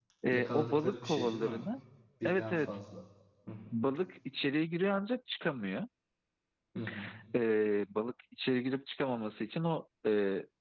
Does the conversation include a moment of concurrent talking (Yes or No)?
Yes